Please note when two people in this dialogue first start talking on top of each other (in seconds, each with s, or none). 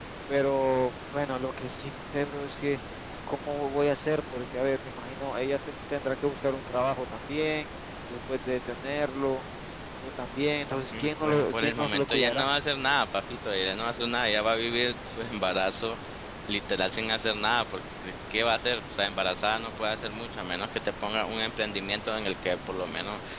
10.9 s